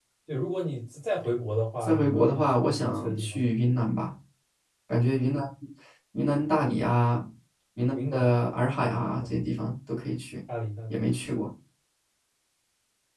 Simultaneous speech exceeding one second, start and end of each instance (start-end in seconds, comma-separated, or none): 1.8-3.4